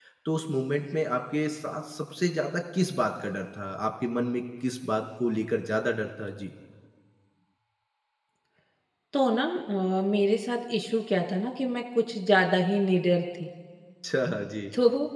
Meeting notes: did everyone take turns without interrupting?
Yes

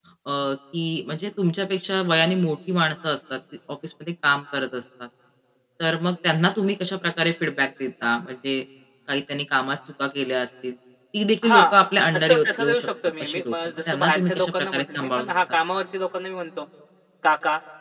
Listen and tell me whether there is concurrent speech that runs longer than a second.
Yes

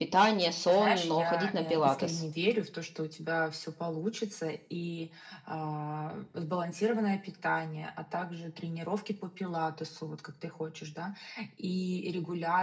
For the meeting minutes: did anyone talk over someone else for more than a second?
Yes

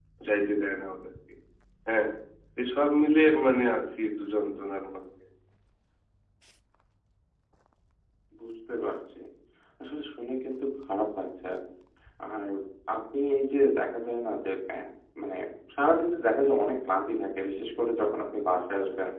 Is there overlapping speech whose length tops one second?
No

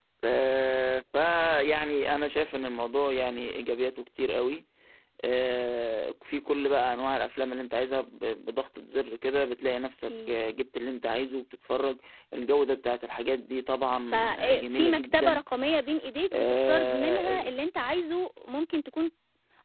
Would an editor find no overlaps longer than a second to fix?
No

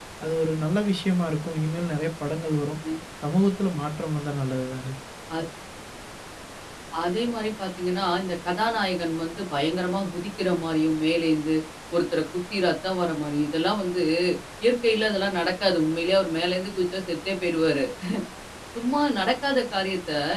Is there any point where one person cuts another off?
No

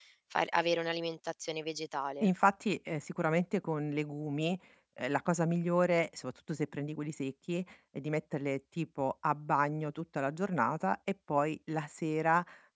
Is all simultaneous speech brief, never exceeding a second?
Yes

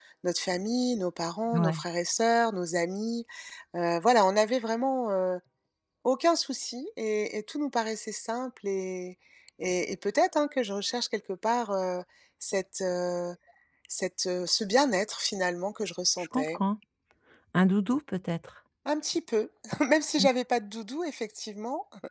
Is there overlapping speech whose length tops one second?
No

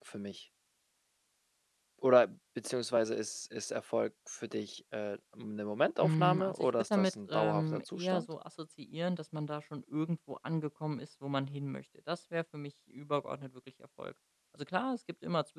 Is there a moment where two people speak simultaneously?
Yes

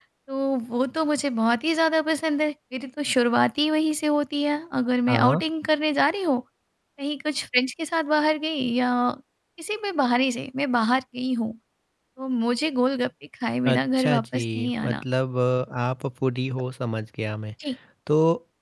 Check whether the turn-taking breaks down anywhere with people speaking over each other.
Yes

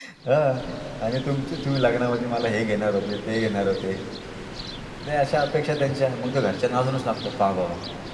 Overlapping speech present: No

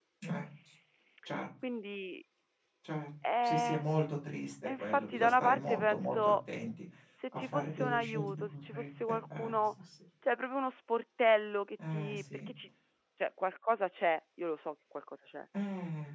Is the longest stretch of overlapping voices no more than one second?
No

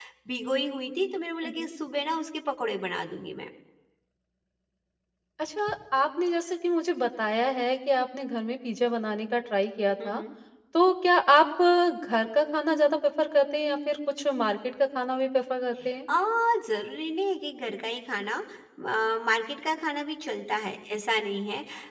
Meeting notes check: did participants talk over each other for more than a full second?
No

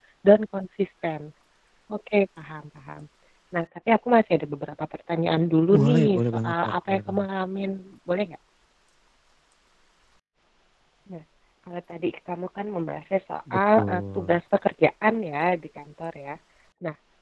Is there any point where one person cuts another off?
Yes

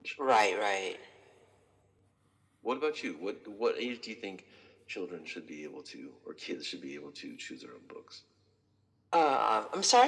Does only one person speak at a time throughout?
Yes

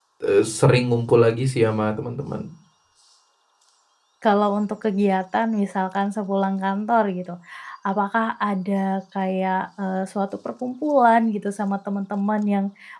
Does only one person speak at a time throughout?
Yes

